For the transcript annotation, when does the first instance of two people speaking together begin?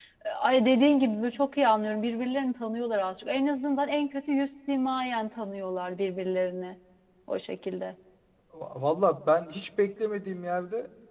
none

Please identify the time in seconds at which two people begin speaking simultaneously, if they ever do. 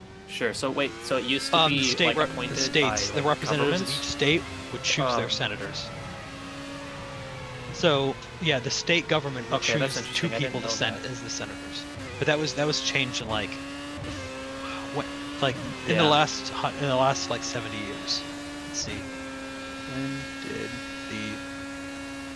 1.5 s

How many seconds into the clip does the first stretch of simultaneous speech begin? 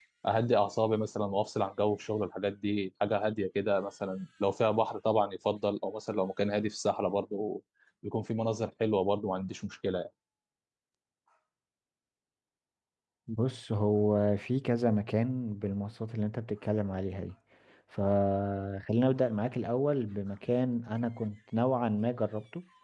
none

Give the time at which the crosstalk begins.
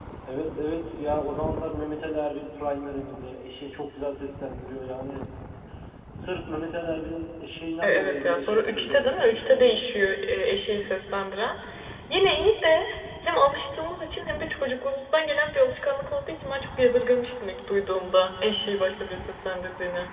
7.8 s

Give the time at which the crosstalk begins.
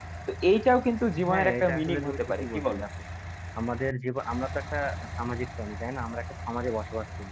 1.3 s

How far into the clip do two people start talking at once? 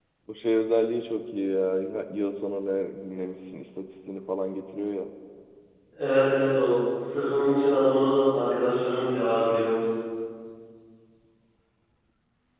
none

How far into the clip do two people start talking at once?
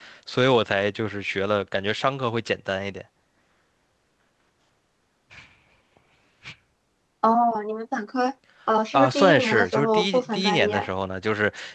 8.9 s

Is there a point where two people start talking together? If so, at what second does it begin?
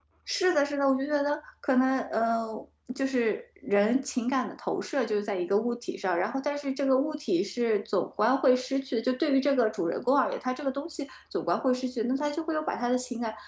none

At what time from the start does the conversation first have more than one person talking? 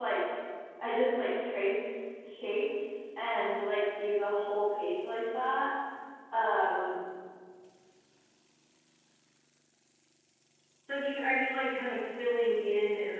none

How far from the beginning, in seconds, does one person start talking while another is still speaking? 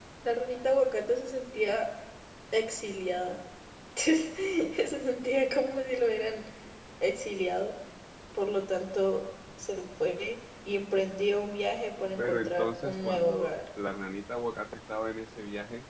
12.2 s

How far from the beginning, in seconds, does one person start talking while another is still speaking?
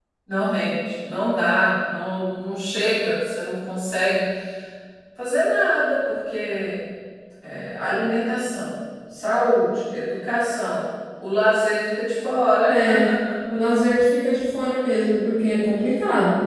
none

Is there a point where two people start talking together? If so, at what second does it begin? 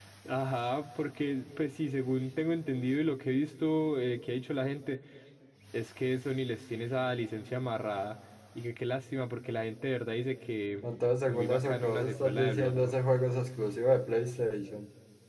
11.2 s

